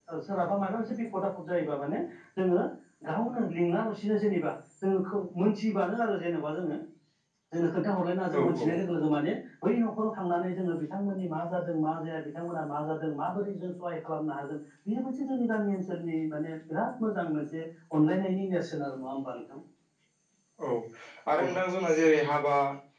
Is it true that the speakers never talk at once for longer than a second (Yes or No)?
Yes